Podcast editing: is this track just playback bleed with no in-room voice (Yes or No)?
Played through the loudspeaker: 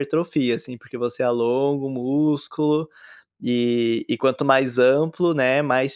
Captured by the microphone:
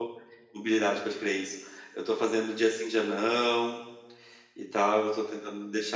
No